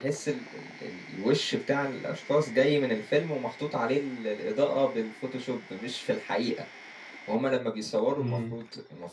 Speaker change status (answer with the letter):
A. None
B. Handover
A